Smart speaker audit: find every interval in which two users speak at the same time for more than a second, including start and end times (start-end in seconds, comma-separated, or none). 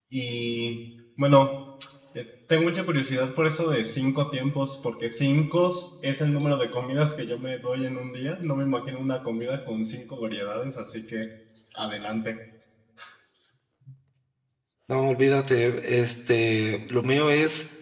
none